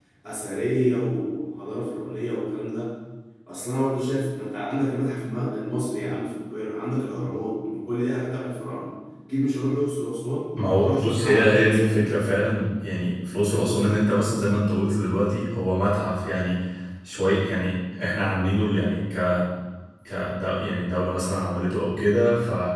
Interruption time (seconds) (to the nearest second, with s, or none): 11 s